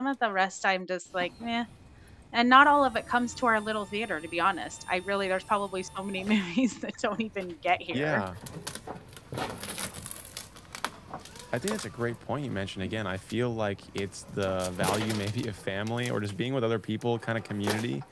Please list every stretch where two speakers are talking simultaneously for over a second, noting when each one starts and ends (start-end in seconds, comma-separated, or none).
none